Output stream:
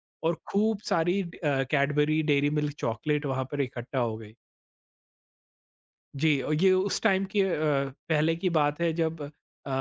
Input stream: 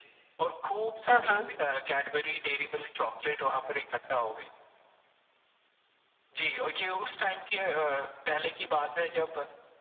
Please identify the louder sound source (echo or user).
user